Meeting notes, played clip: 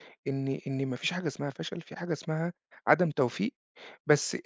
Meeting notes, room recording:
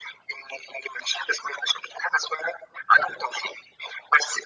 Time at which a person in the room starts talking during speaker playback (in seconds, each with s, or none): none